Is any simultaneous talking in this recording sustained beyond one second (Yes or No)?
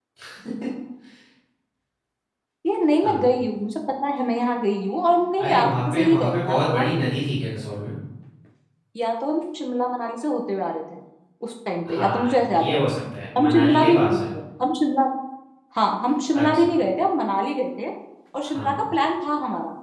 Yes